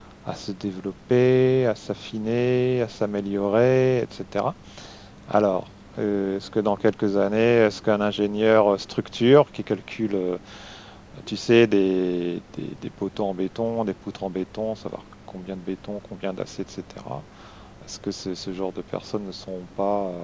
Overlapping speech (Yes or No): No